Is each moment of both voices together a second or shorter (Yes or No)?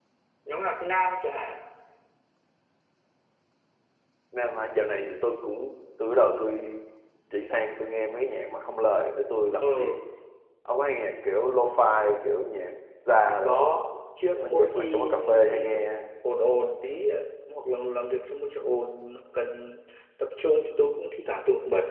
No